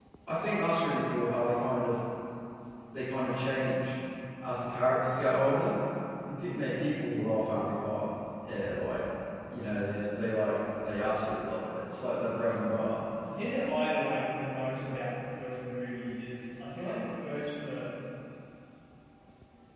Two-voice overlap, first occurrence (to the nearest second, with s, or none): none